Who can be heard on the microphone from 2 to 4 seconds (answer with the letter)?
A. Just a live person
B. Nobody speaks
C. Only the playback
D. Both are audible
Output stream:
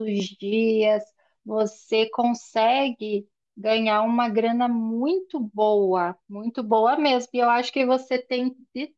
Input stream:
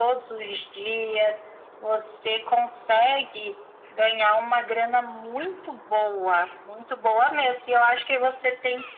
C